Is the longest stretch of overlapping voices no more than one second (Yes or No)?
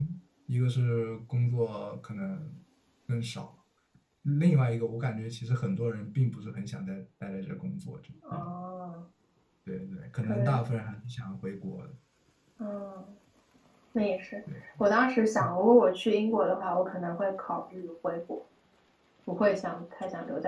Yes